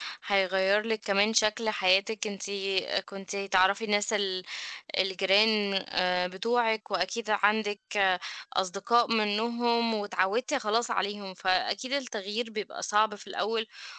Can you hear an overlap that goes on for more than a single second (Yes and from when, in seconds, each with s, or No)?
No